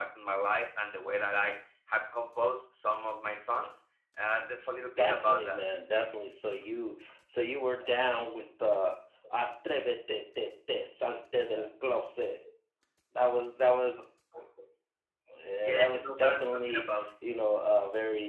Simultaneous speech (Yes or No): Yes